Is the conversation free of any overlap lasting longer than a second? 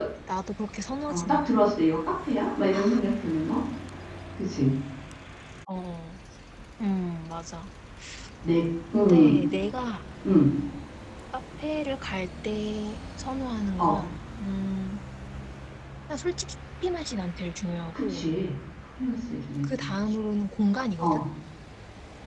Yes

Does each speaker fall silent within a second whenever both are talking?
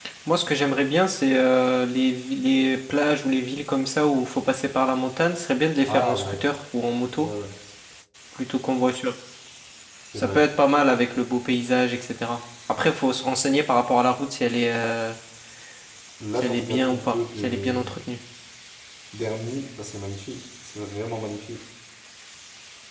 No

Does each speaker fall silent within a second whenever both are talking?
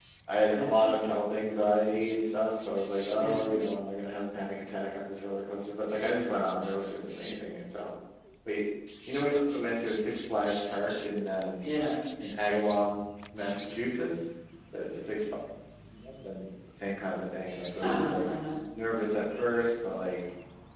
Yes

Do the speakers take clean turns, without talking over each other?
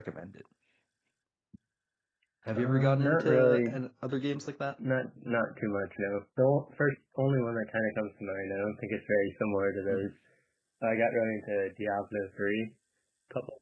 No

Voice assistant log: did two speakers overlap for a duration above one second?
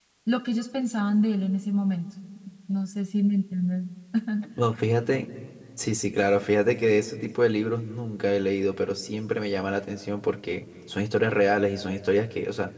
No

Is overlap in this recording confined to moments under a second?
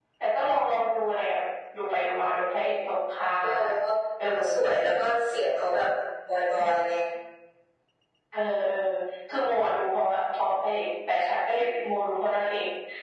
Yes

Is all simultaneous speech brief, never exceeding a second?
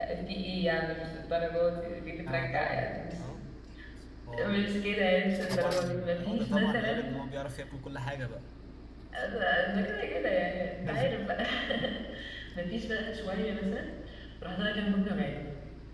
No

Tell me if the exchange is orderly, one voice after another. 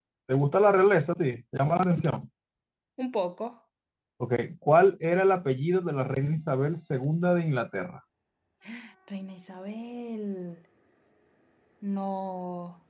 Yes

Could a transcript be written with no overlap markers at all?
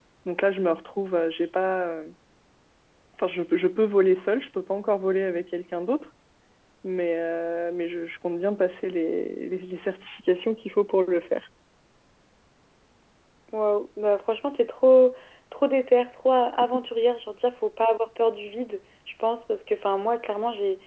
Yes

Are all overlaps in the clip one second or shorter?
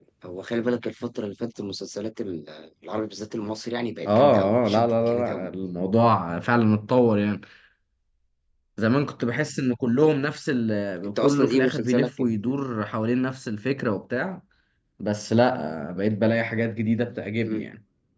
No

